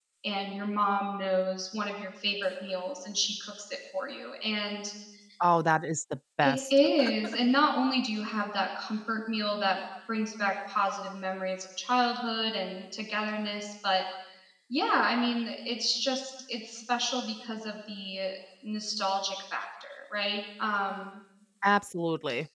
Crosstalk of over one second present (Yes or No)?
No